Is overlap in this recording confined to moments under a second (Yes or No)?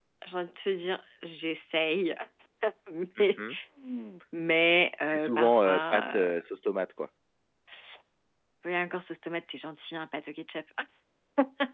No